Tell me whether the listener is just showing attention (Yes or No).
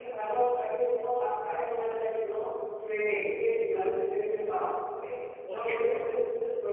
Yes